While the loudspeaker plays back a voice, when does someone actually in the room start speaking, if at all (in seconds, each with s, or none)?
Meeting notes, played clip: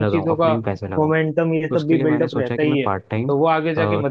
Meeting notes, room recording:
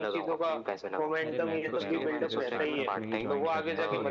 1.3 s